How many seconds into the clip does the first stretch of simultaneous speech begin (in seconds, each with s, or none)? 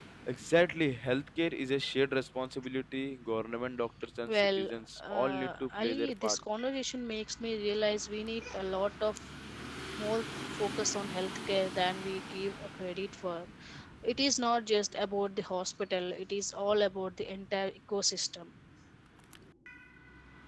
4.3 s